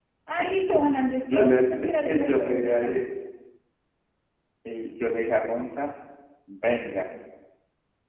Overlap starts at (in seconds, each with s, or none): 1.3 s